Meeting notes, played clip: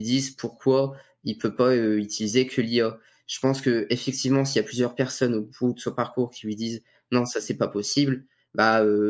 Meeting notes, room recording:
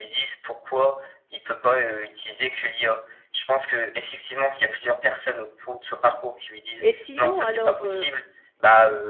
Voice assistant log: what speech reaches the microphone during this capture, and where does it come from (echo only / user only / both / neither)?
both